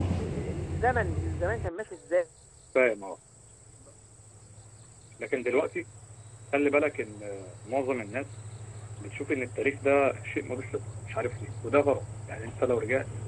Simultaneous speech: No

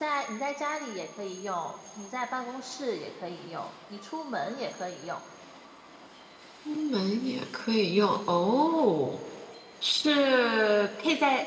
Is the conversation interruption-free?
Yes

